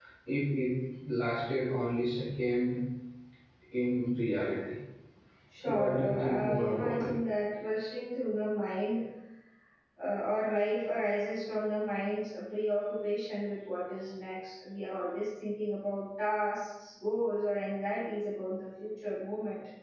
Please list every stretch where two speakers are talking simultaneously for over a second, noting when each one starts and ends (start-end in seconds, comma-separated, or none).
5.7-7.2